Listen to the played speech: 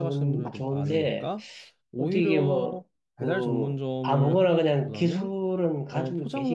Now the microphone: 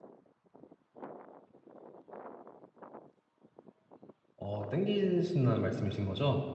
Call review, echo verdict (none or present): none